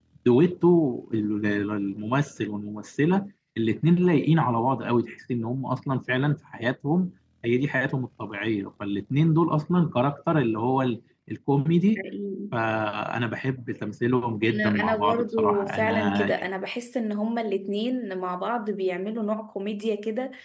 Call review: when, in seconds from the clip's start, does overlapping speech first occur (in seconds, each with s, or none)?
14.4 s